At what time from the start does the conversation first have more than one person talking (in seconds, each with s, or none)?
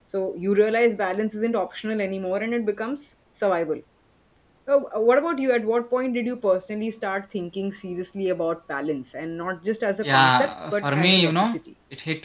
10.0 s